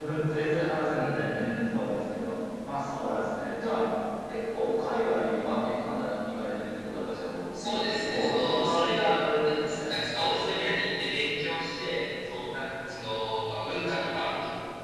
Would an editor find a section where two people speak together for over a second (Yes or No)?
Yes